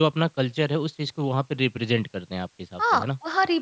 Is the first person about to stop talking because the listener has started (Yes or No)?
Yes